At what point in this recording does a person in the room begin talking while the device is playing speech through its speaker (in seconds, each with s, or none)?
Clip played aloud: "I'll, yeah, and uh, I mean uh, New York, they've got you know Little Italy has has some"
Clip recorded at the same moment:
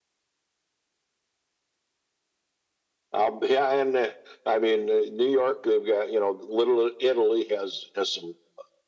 none